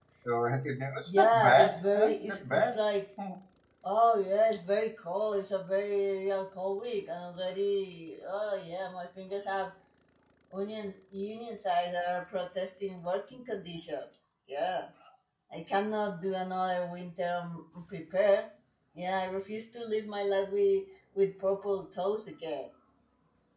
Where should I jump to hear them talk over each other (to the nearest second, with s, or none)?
1 s